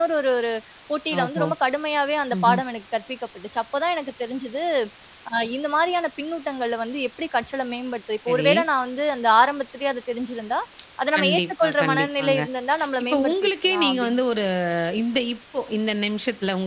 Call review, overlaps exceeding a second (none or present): present